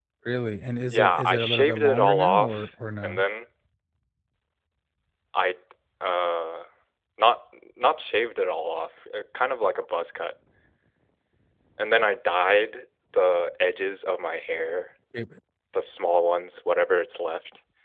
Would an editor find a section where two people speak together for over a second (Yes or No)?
Yes